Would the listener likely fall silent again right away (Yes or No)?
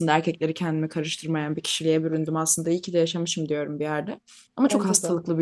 Yes